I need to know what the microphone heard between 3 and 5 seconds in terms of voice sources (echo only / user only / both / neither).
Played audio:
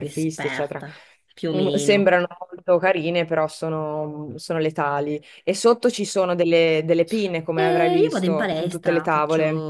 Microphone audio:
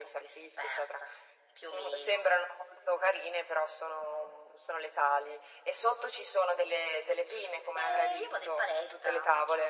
echo only